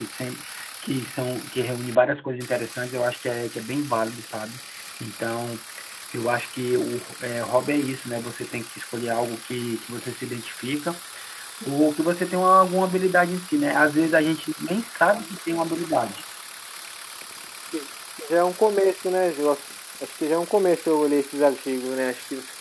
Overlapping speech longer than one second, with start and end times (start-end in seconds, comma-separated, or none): none